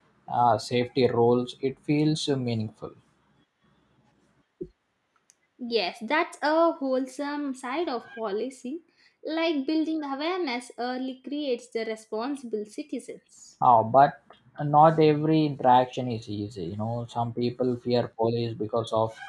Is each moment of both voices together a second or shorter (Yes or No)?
Yes